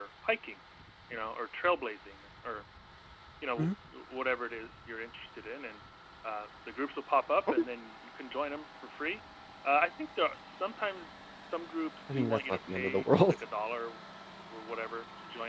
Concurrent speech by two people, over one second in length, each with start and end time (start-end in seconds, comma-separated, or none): 12.1-13.4